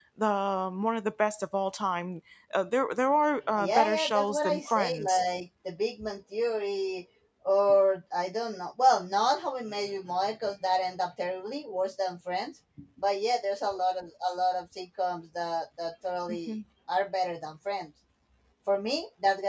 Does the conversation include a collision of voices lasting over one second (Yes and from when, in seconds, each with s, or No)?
Yes, from 3.6 s